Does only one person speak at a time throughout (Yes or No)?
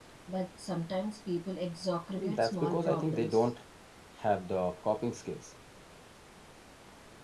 No